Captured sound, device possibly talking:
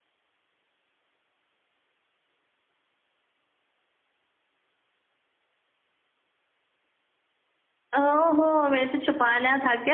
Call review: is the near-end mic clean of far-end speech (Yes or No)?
Yes